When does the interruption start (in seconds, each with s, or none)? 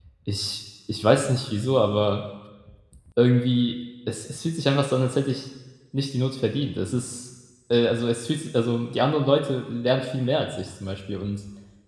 none